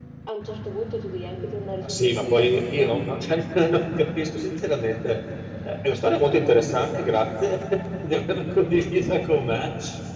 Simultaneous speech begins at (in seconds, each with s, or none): 1.8 s